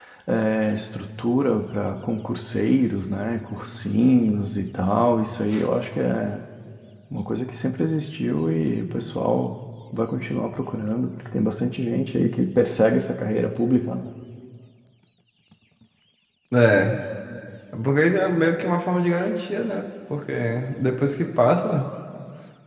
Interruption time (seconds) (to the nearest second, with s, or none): none